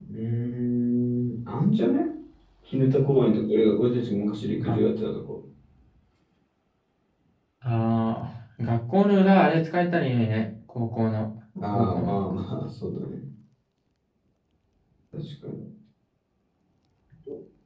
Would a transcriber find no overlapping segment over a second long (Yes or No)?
Yes